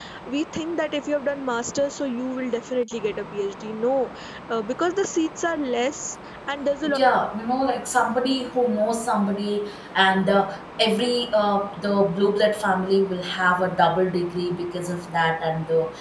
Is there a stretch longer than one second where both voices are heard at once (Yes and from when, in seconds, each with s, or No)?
No